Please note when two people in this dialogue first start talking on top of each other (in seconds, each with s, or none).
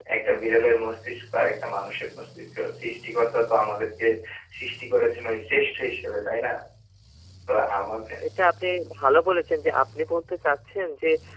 none